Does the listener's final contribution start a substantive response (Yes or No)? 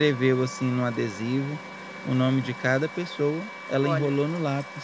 No